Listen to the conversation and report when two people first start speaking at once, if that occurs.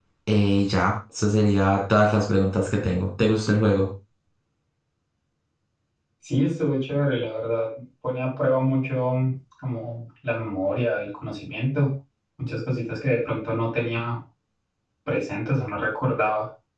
none

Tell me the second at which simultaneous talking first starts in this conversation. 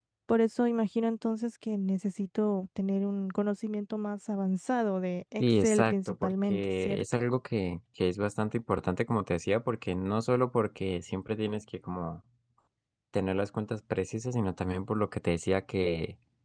5 s

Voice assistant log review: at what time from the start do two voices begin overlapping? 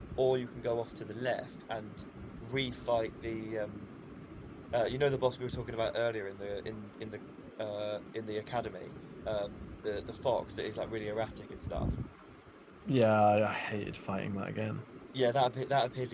none

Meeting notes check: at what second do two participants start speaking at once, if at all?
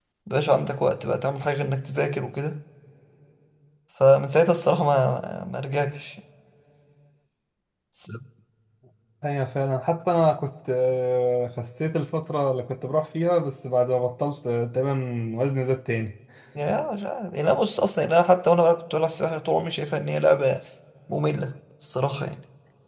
none

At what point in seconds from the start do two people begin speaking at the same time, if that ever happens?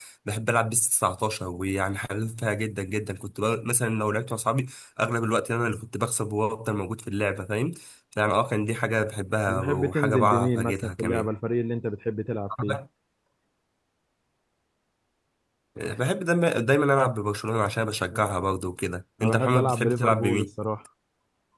9 s

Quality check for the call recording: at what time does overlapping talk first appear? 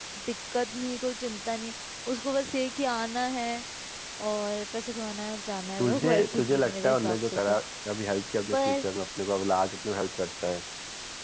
6 s

